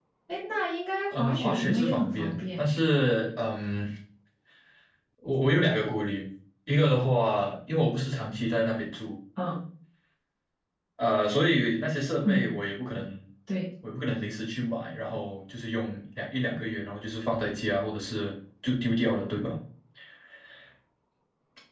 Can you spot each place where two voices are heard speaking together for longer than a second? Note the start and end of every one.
1.1-2.7

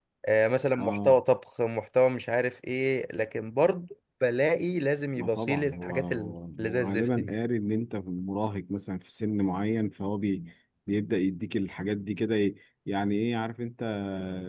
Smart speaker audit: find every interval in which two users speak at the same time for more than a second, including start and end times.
5.1-7.3

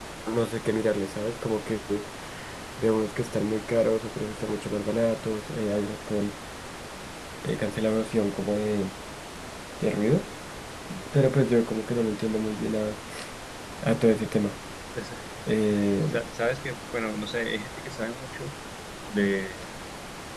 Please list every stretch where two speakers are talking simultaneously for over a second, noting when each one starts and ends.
none

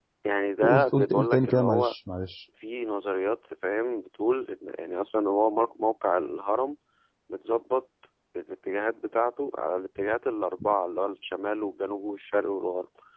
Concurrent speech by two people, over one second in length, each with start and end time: 0.6-1.9

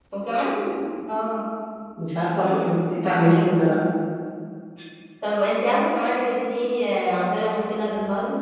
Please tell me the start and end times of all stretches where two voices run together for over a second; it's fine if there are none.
2.4-3.8

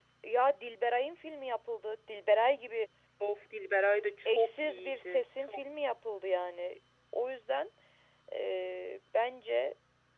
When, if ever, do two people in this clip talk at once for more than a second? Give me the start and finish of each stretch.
4.2-5.6

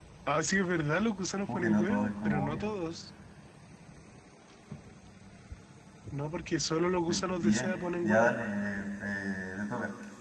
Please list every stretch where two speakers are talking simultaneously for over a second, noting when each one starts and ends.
1.4-2.7, 7.1-8.3

